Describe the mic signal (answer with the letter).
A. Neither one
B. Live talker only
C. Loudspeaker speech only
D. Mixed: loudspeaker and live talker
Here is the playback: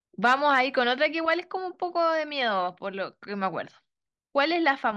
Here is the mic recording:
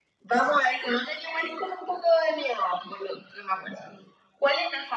C